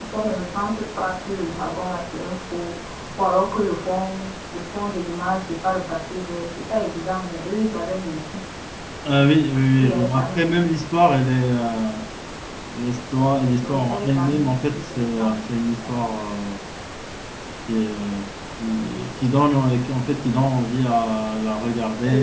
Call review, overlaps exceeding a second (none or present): present